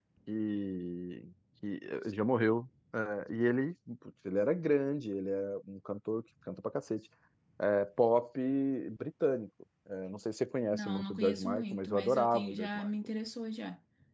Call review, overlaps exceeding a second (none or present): present